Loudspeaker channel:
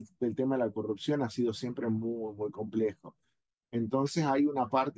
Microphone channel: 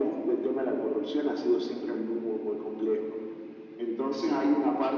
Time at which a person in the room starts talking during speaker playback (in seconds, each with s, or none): none